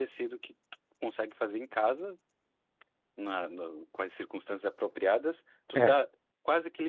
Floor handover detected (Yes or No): No